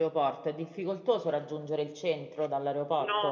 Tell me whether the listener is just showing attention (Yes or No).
No